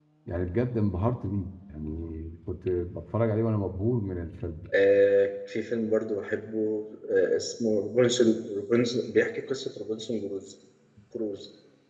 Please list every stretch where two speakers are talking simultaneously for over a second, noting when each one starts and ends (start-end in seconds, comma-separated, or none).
none